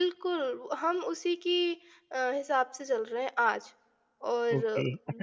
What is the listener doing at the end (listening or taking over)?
taking over